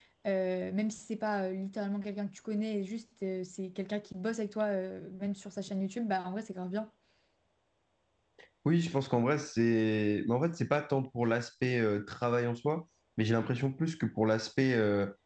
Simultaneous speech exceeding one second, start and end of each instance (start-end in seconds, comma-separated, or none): none